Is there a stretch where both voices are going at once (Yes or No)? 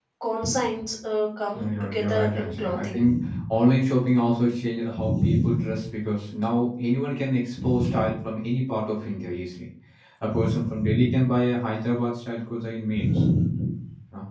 Yes